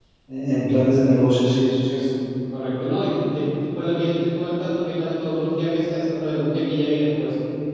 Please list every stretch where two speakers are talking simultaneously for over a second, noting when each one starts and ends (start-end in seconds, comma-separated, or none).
none